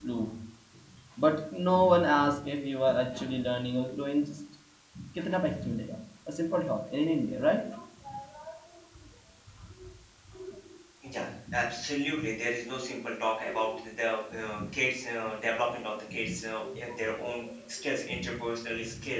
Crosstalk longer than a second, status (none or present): none